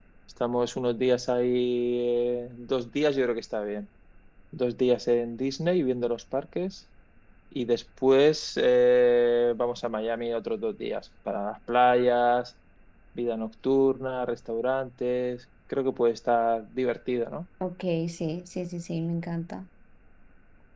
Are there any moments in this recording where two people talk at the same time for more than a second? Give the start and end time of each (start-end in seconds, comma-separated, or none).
none